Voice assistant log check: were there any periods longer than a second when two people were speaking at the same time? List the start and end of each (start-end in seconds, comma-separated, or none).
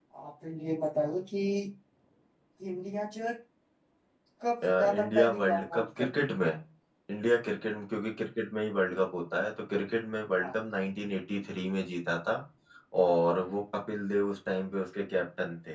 4.7-6.1